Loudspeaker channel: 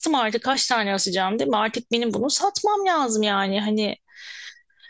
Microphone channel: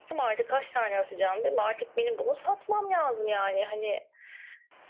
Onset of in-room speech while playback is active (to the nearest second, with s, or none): none